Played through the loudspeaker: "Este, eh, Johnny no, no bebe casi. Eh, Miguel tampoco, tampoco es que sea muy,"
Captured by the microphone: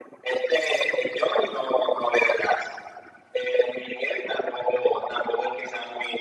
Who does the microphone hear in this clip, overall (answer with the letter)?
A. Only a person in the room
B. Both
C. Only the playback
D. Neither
C